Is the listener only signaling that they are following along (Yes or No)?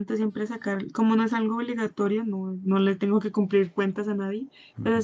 Yes